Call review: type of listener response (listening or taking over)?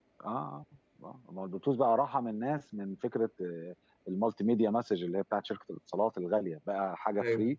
listening